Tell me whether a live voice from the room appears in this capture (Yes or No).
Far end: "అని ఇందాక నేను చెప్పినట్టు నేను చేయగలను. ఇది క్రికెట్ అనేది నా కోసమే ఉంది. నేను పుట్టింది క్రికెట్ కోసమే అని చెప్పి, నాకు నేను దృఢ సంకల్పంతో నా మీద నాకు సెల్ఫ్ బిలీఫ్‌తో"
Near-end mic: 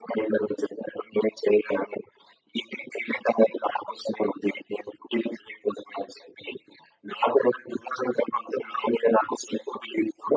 No